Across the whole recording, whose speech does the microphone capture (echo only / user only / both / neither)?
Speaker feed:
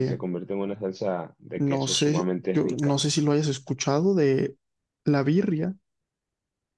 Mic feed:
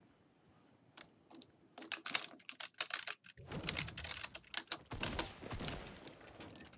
neither